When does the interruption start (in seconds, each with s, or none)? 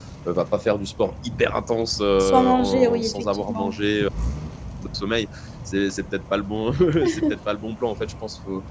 2.2 s